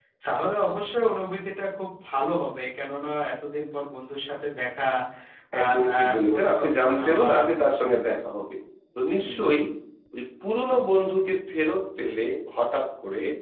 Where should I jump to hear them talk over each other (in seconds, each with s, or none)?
5.6 s